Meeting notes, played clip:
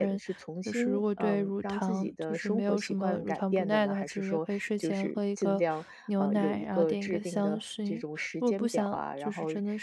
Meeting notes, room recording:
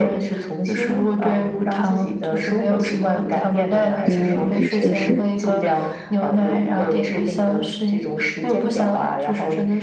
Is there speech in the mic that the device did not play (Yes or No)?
Yes